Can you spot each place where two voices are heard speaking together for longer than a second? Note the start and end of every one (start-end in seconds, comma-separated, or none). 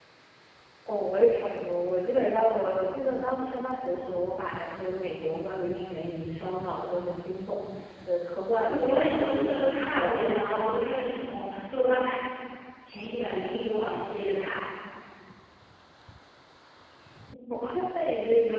8.6-10.3